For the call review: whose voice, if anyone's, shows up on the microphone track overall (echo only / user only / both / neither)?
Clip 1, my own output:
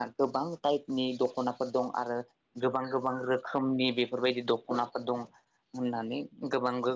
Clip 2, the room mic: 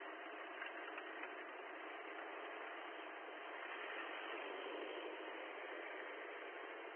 neither